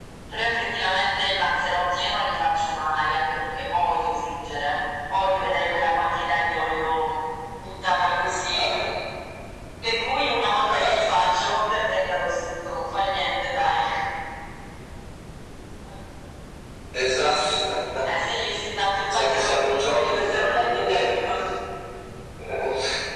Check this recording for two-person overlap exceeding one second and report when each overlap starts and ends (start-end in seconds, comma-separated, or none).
19.0-21.2